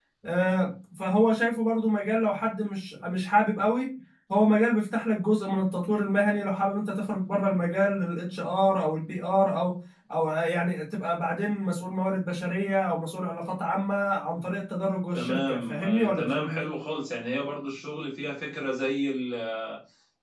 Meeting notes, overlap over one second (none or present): present